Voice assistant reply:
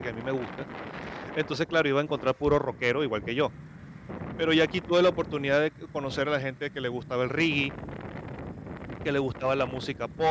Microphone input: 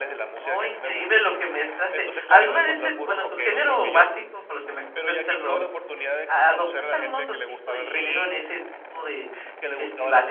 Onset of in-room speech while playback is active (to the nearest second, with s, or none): 0 s